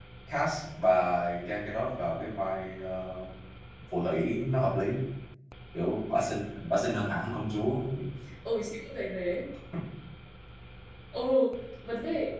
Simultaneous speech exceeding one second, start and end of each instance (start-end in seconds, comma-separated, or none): none